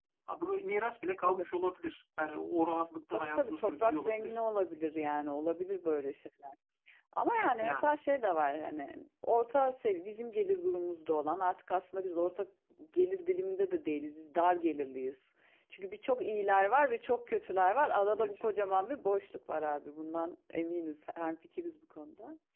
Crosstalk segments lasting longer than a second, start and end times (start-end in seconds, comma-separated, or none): 3.1-4.3